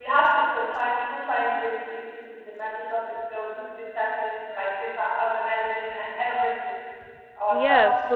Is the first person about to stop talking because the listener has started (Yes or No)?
Yes